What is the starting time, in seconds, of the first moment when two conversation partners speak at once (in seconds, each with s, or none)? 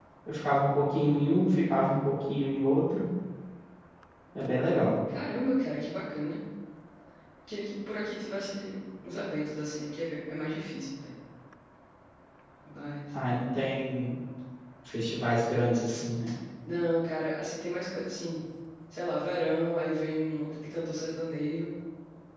none